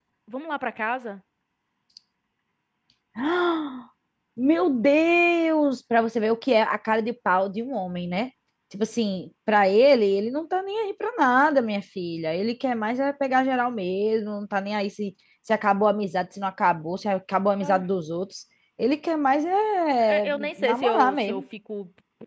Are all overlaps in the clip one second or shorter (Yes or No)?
No